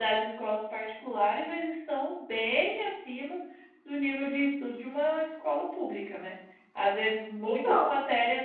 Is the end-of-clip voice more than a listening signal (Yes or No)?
No